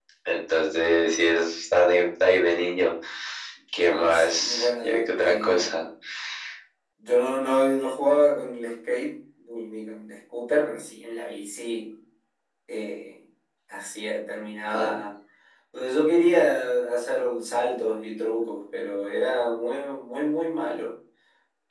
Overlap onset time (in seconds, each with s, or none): 3.8 s